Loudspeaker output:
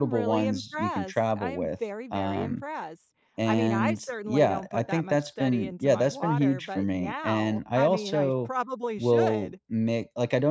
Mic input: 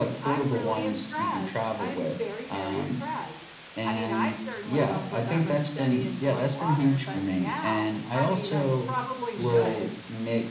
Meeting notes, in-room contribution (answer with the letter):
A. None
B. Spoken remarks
B